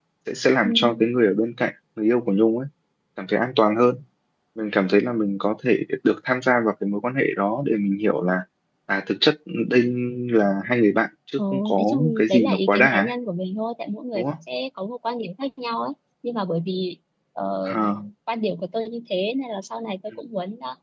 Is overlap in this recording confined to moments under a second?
No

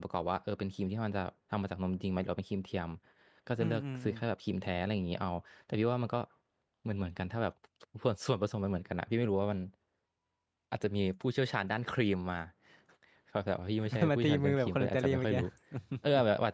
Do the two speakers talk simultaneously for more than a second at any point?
Yes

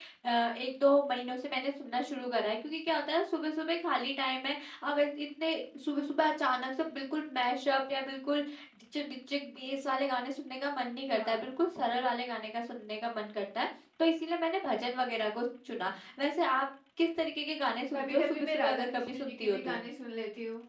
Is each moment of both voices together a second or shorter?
No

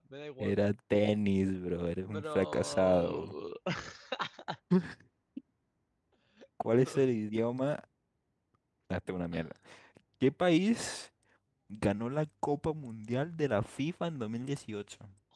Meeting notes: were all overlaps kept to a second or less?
No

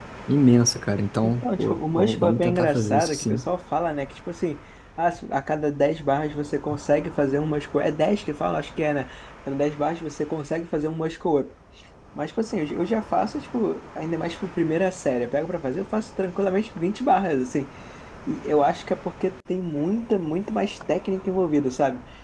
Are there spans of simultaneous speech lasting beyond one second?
Yes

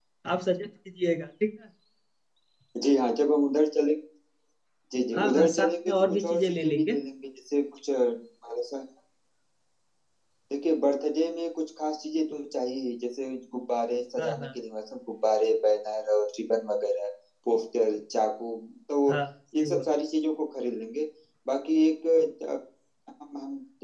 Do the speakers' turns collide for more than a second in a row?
Yes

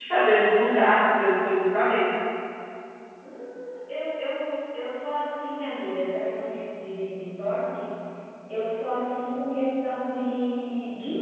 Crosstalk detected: No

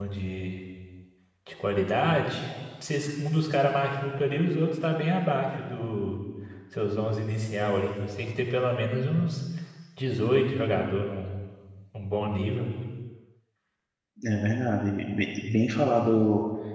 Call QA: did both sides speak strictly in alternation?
Yes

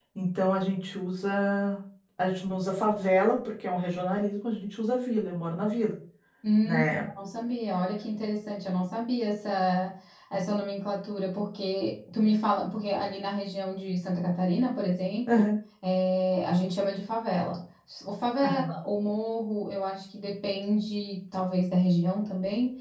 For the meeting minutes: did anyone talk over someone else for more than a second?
No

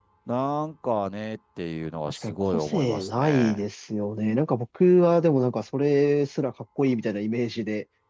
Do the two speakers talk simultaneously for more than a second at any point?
Yes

